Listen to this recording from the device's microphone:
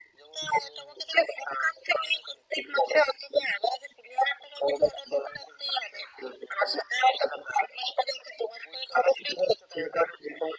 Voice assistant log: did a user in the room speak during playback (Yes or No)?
No